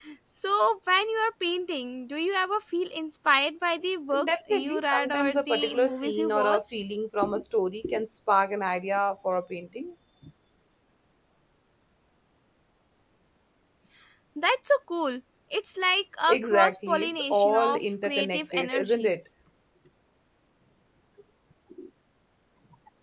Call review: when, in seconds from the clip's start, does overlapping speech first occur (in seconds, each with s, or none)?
4.1 s